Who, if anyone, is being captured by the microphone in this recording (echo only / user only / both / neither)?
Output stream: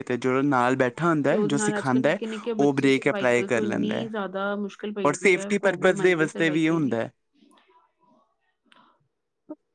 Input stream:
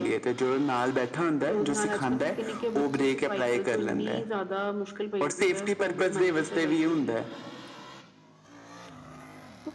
echo only